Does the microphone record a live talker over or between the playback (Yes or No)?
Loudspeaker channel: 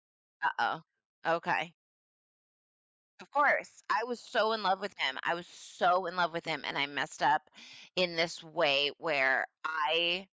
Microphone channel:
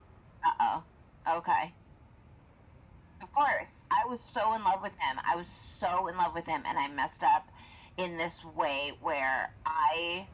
No